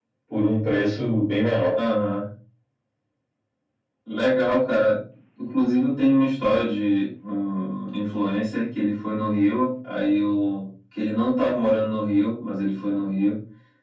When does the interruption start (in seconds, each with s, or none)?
none